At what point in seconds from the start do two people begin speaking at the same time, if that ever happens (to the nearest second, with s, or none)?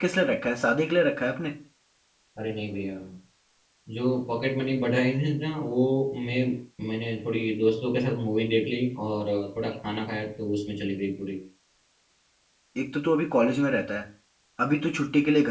none